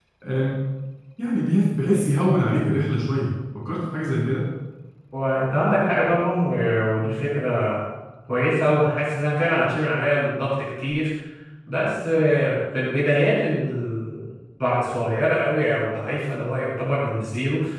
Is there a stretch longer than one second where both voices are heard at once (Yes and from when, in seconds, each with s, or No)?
No